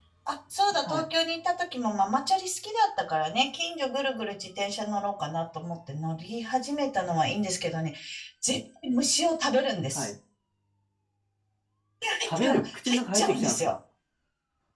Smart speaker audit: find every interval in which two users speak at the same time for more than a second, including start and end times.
12.4-13.7

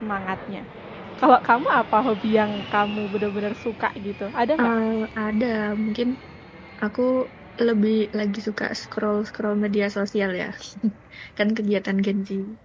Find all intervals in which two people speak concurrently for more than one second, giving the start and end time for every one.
none

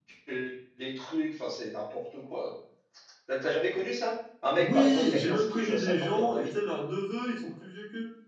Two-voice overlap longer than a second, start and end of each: 4.5-6.5

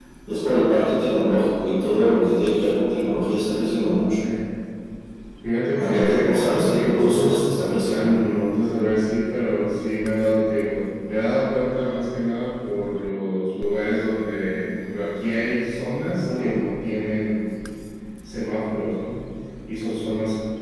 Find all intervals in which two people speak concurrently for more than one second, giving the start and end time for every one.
5.8-8.1

